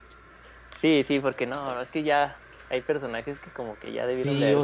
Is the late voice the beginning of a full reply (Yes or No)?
Yes